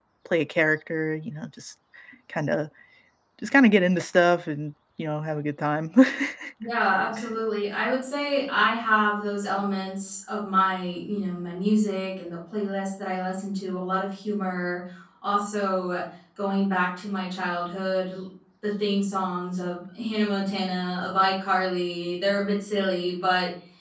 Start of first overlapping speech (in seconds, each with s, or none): none